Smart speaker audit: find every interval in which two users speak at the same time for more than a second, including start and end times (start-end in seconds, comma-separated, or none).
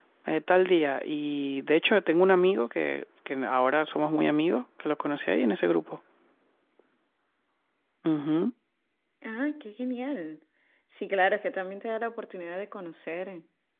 none